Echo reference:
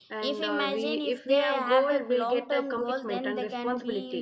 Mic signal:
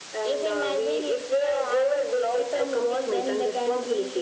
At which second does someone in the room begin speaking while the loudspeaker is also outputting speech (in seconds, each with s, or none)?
none